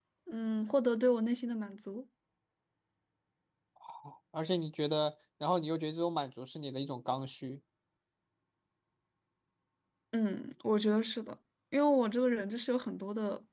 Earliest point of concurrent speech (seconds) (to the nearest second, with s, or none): none